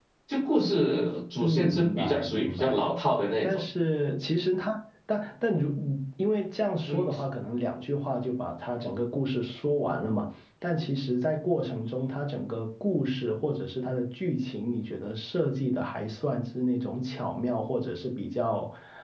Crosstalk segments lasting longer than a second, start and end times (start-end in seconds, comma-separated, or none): 1.4-2.9